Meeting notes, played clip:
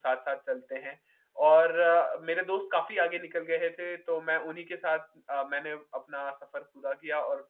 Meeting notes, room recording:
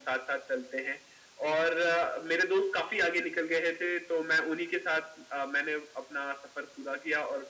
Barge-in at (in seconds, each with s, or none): none